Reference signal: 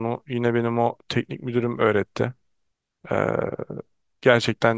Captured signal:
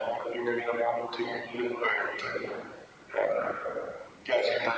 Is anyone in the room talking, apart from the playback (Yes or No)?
No